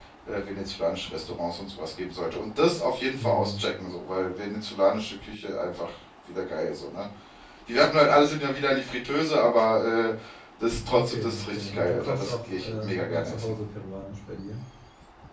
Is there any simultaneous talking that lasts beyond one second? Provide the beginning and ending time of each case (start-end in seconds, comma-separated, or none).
10.9-13.5